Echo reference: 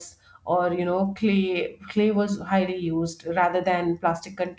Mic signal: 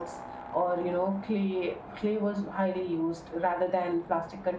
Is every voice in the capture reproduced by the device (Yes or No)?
Yes